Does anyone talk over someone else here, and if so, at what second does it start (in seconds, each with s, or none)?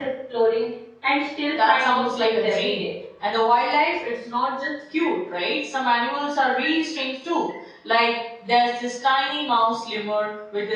1.6 s